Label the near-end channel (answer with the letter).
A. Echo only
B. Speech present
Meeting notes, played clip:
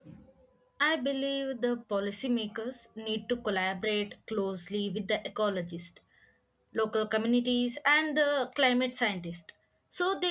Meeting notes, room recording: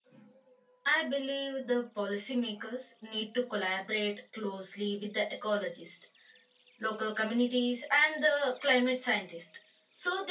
A